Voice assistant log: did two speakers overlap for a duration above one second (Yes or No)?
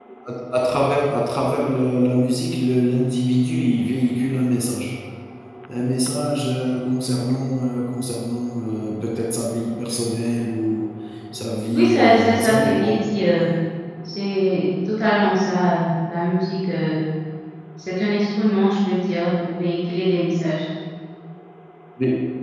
Yes